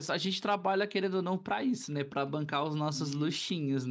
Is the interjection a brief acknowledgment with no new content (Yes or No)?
No